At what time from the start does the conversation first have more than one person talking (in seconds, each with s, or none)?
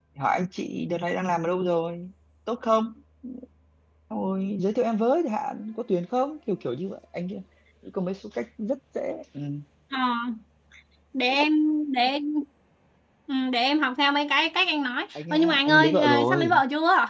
15.2 s